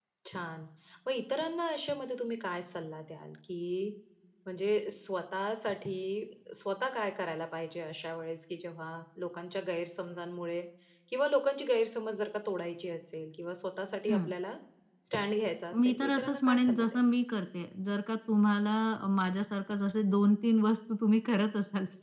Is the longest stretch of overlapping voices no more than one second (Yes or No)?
No